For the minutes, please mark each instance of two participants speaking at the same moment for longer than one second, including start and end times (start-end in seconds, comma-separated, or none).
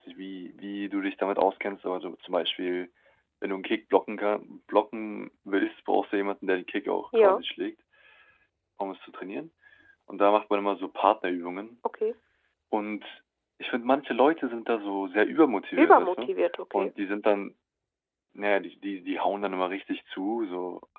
none